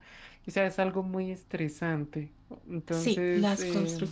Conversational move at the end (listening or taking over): taking over